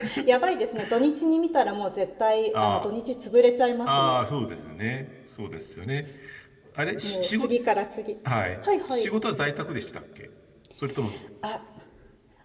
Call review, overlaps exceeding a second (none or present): none